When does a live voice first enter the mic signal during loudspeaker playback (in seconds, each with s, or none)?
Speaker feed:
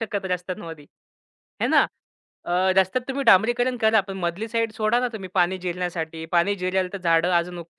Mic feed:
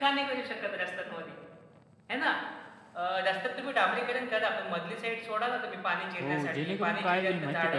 6.2 s